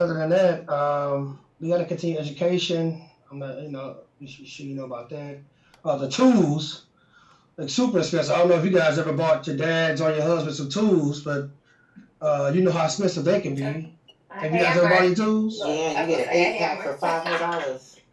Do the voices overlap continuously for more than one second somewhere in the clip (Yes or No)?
Yes